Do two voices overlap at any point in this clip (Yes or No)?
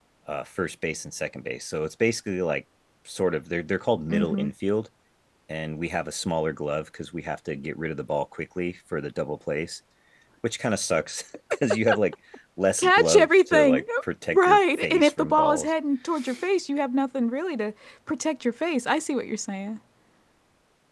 Yes